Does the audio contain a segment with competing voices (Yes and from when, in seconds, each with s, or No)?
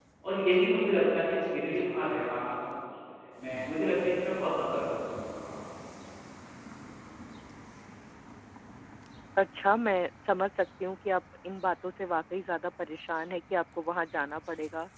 No